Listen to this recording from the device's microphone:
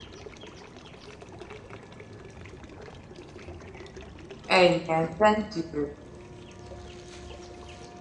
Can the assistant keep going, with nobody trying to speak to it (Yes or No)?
No